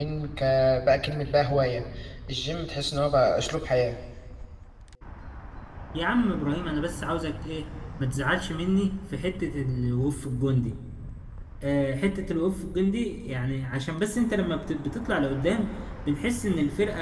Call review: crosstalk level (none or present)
none